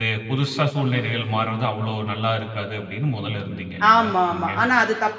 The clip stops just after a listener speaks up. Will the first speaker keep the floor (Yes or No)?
No